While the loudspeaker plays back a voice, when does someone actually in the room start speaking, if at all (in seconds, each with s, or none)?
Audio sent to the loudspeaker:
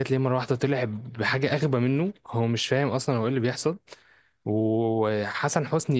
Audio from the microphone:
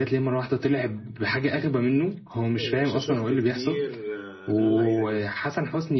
2.4 s